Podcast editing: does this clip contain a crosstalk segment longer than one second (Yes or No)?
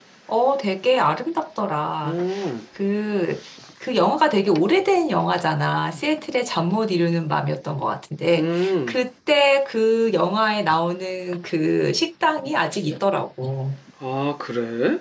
No